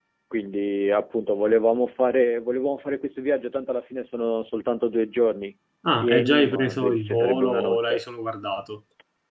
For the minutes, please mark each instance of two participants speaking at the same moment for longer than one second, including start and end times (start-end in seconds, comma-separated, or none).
6.0-8.0